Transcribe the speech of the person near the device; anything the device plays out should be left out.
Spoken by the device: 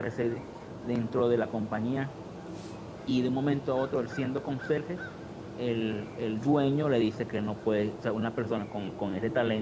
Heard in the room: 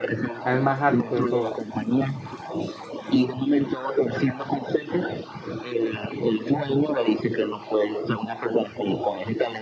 Al más alto de todos.

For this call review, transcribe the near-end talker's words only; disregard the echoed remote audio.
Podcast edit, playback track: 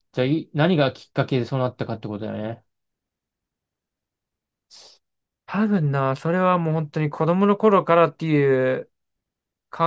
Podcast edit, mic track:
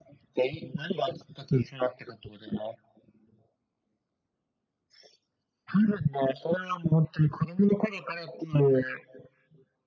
none

